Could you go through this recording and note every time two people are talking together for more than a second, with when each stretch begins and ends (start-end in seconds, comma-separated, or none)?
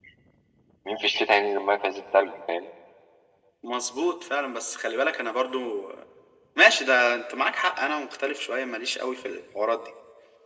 none